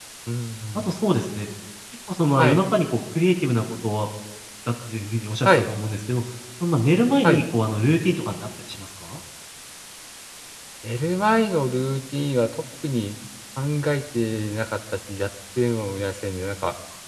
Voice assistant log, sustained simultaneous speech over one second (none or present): none